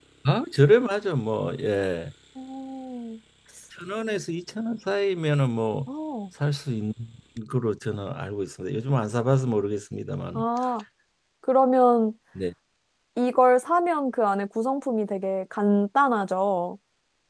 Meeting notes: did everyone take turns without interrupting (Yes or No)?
Yes